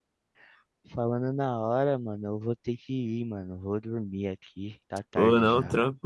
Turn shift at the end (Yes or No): Yes